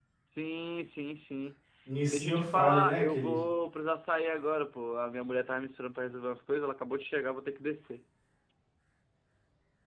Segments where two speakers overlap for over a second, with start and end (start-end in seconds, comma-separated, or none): 2.1-3.4